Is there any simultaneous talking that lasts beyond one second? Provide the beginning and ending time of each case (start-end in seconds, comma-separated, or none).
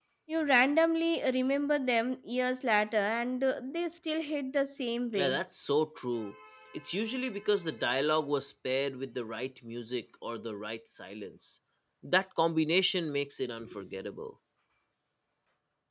none